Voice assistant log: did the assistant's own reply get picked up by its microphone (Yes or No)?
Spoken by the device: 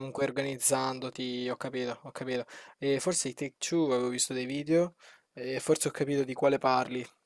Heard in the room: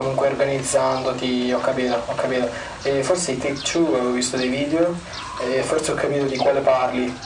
Yes